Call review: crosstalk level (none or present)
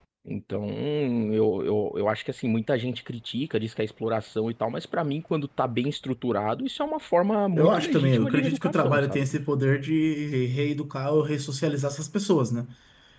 present